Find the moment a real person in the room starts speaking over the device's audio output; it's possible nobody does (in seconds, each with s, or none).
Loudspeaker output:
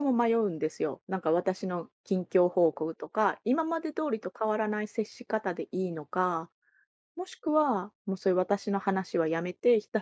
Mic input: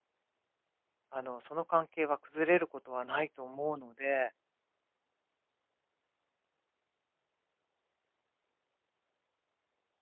1.1 s